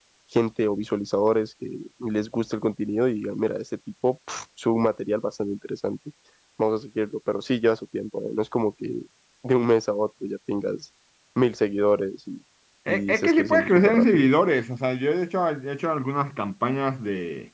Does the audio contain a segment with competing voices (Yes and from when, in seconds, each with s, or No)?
Yes, from 12.9 s